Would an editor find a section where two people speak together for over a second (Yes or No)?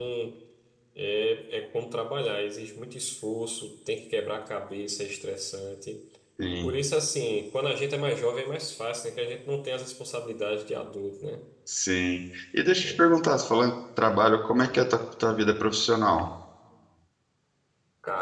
No